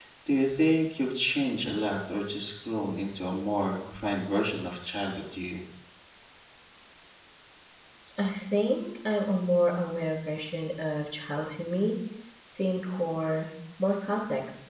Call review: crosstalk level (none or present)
none